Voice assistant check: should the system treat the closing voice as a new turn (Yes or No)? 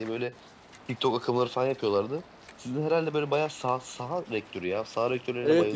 Yes